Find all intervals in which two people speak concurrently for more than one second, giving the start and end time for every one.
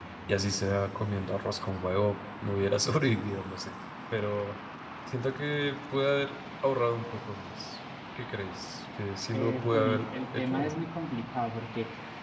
9.3-10.8

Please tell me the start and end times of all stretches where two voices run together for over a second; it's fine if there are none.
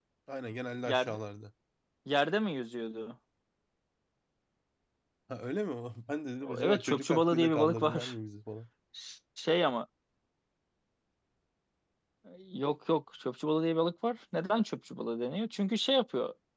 6.6-8.1

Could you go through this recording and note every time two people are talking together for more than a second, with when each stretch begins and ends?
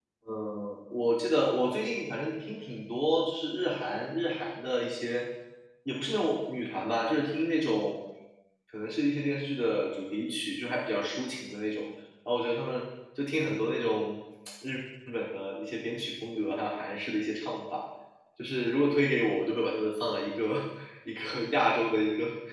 none

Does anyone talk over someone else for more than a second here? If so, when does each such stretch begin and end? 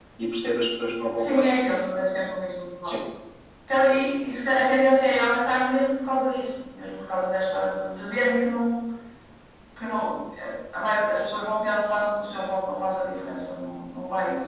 none

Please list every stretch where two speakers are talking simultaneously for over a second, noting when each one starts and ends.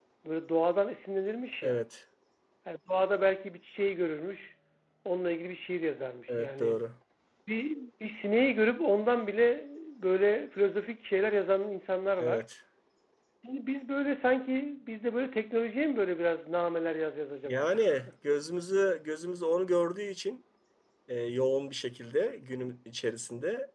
none

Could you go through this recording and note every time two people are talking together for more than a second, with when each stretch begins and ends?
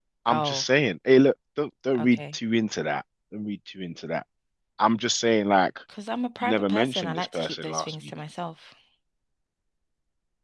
6.4-8.1

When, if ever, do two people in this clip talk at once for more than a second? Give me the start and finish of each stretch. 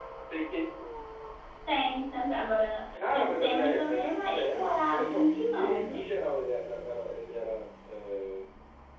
3.1-6.1

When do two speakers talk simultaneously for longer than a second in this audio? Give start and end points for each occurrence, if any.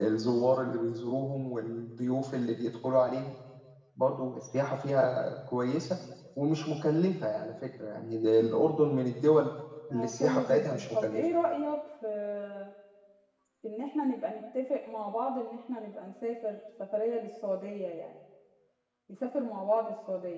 9.9-11.2

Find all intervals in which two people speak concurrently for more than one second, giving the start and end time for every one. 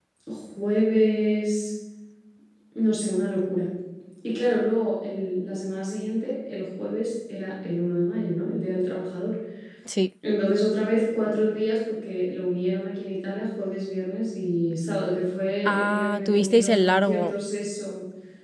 15.7-17.3

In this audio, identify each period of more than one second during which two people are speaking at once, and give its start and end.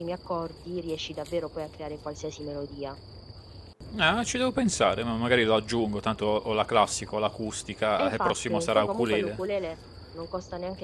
8.0-9.4

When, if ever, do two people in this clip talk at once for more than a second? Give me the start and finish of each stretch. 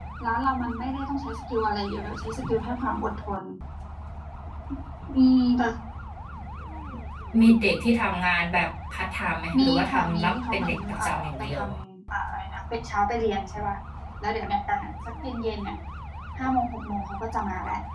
9.6-11.6

